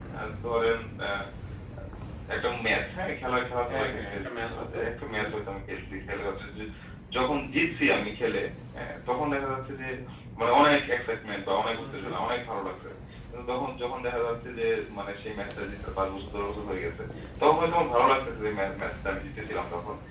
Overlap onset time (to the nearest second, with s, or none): 4 s